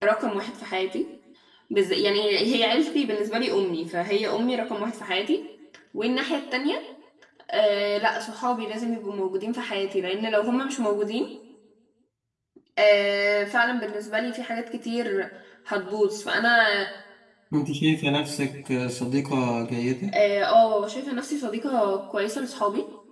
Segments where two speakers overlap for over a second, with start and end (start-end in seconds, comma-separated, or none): none